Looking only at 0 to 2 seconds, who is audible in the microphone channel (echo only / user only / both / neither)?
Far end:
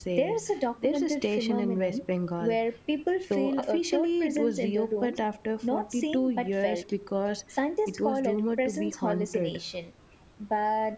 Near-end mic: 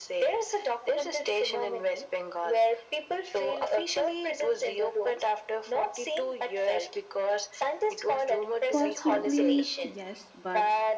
echo only